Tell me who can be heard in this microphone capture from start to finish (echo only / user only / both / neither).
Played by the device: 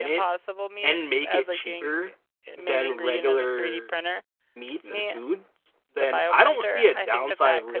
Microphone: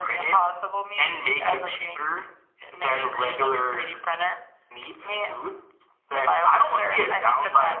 echo only